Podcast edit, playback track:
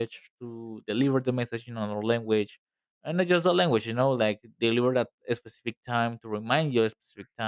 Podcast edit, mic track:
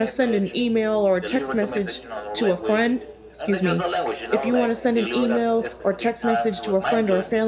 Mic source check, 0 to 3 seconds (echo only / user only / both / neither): both